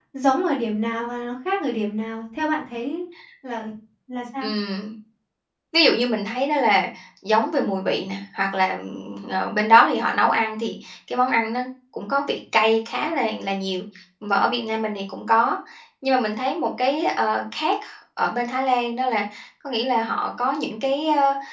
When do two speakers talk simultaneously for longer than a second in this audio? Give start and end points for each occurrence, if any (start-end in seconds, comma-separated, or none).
none